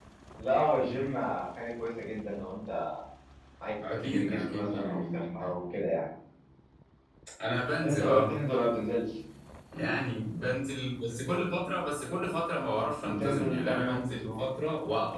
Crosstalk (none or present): present